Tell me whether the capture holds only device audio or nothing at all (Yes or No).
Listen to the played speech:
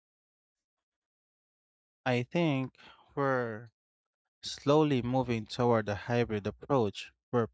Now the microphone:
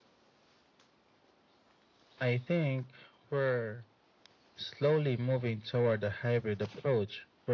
Yes